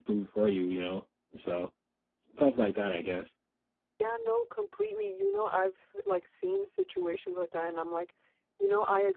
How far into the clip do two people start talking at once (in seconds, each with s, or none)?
none